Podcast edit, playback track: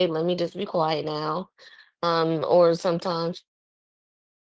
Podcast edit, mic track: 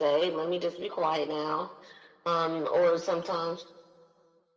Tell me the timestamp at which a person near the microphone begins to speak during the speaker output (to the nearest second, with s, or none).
none